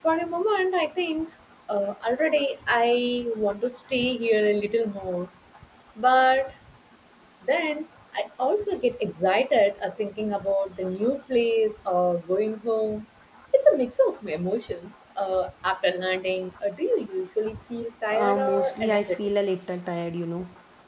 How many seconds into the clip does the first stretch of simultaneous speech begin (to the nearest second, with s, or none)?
18 s